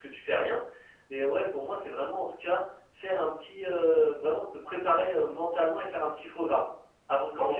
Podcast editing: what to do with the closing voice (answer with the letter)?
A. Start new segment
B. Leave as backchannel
A